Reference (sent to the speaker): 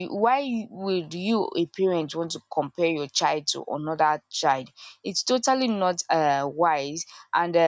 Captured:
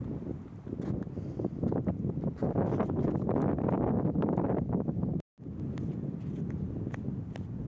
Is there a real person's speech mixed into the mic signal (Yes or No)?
No